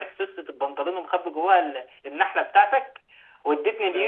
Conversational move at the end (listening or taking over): listening